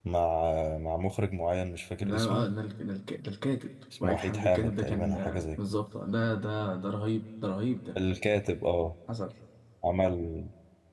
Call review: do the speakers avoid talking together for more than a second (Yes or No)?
No